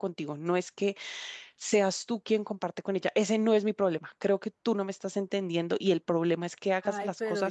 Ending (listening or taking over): taking over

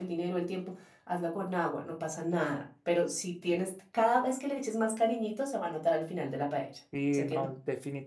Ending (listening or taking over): taking over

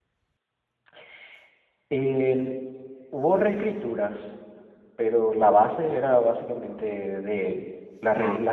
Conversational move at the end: listening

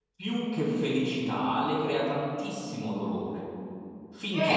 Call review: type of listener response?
taking over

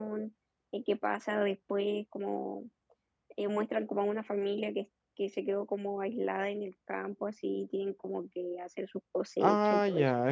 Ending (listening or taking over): taking over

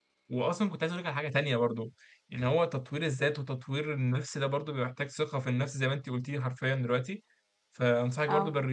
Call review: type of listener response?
listening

